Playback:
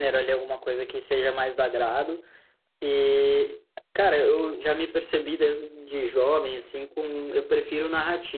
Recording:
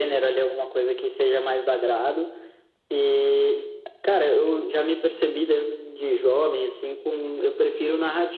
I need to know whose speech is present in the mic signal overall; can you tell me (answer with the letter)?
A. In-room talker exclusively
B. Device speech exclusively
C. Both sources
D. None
B